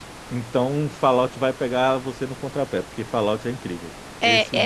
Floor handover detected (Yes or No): Yes